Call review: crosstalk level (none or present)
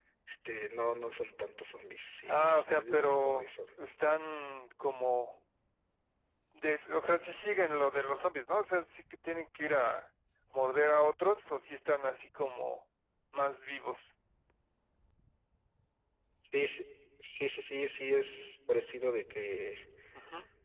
present